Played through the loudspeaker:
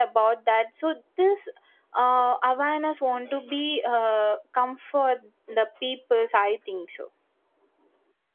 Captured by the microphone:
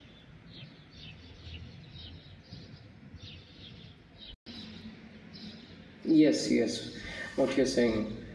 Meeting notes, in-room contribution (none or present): present